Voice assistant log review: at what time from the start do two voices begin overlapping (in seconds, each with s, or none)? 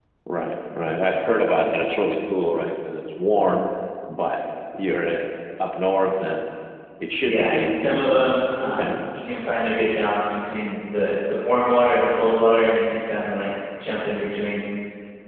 7.1 s